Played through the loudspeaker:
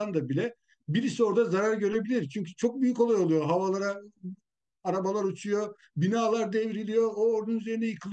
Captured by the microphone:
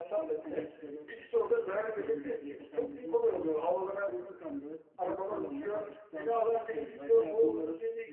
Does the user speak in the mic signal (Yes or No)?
Yes